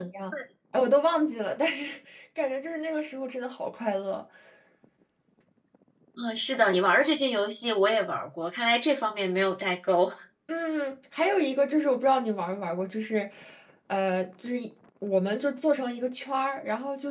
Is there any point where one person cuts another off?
No

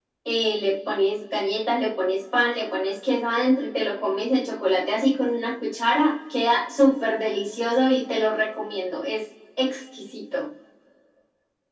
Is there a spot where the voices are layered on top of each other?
No

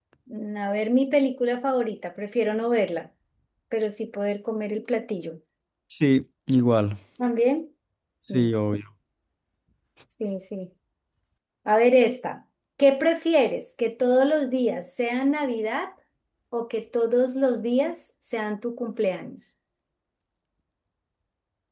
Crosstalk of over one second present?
No

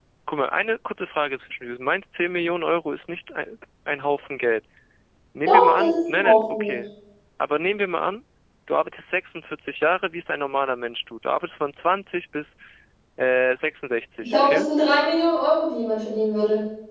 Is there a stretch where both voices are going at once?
Yes, from 5.5 s

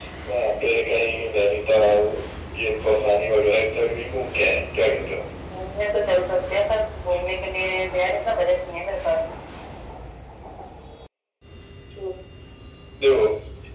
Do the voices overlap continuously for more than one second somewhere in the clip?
No

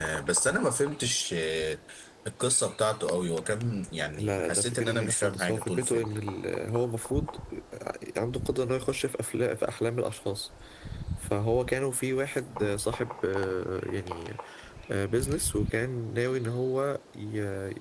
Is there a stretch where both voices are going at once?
Yes, from 4.1 s

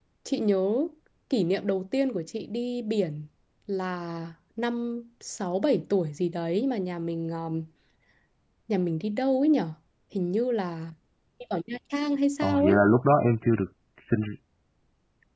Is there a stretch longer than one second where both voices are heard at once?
No

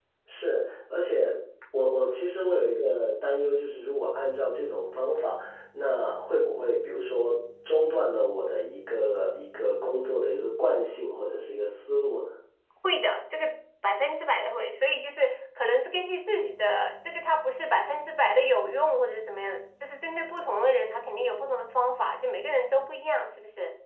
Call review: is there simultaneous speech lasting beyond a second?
No

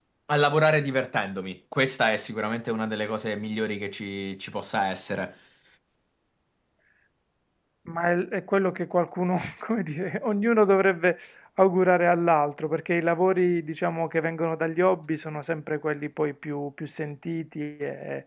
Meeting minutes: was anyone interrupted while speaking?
No

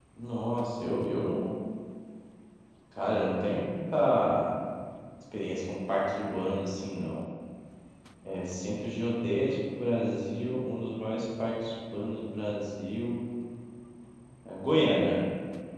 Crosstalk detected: No

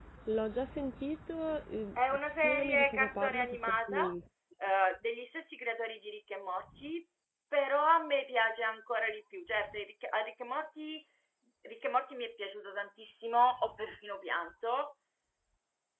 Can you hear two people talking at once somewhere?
Yes, from 2.0 s

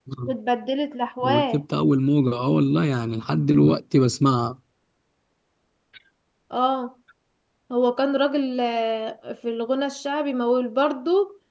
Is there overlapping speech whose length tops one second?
No

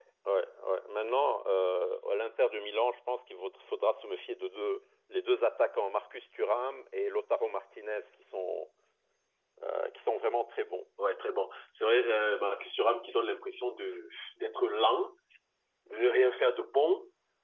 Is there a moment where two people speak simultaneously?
No

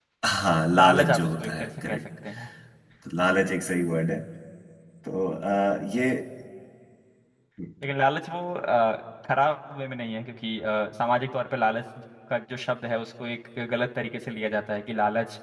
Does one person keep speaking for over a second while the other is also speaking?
Yes, from 0.8 s

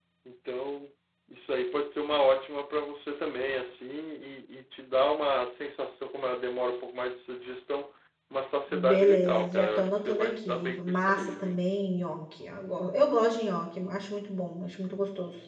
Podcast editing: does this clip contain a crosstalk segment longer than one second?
Yes, from 8.7 s

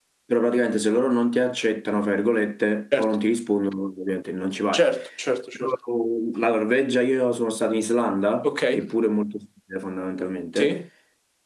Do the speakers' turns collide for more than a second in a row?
No

